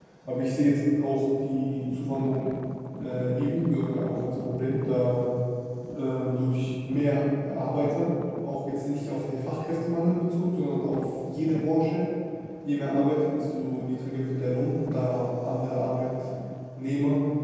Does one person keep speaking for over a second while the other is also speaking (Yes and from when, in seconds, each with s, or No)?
No